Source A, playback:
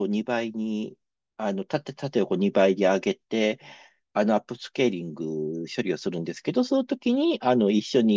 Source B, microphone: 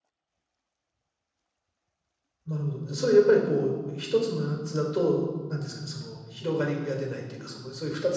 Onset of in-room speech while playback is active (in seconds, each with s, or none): 2.4 s